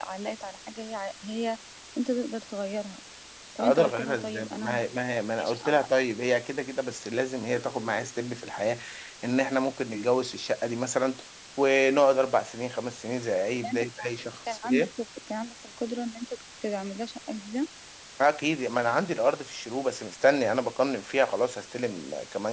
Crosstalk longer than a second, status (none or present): present